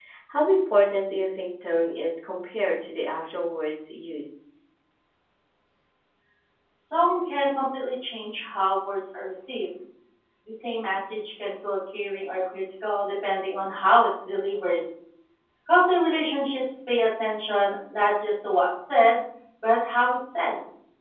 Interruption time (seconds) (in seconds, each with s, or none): none